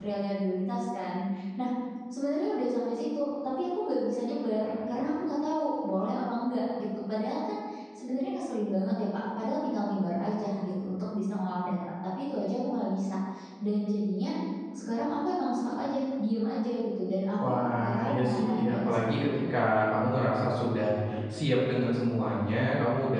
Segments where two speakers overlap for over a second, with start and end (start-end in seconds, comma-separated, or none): 17.4-19.4